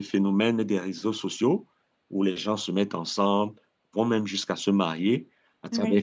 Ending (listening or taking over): listening